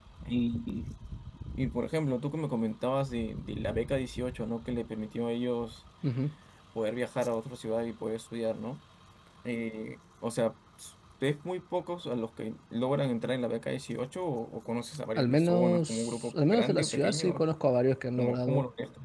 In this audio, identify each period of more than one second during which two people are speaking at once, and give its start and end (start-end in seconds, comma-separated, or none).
15.2-17.4